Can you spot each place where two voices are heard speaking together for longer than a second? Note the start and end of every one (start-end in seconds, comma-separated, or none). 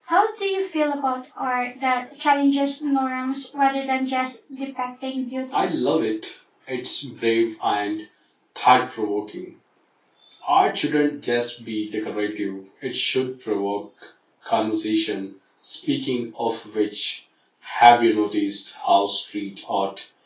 none